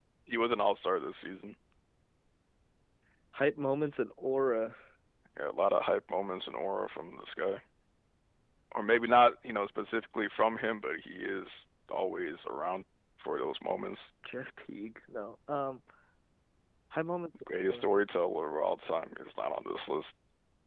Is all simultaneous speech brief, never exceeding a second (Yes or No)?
Yes